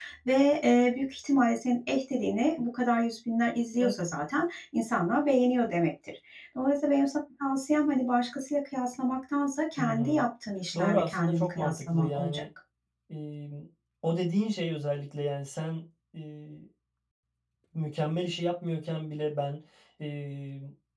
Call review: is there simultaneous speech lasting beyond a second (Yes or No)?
Yes